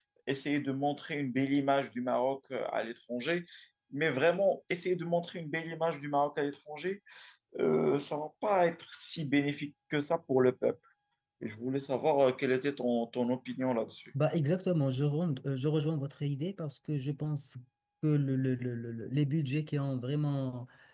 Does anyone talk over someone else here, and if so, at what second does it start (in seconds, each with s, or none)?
none